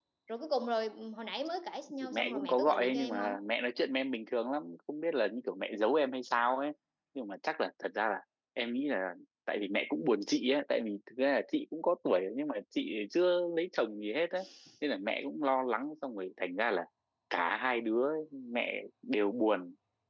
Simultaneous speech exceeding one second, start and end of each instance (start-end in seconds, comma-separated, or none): 2.0-3.3